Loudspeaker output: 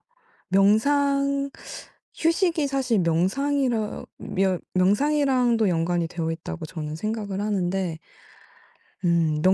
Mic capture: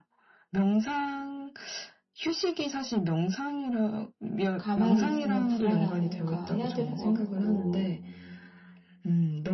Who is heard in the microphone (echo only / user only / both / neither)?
both